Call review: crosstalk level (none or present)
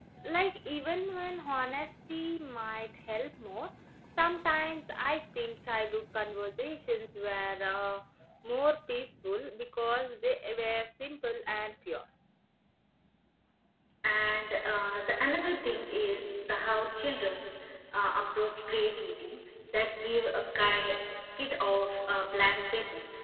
none